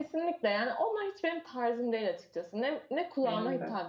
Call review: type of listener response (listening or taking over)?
listening